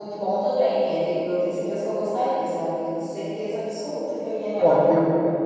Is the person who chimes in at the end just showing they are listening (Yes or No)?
No